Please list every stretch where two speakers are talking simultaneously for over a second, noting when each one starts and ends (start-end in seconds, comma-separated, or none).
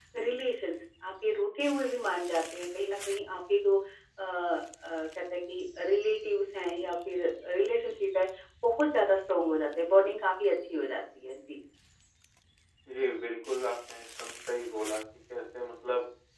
none